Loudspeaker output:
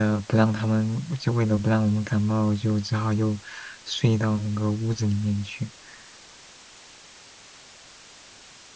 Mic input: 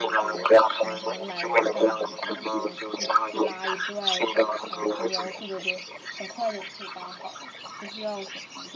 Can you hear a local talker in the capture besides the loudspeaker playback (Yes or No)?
Yes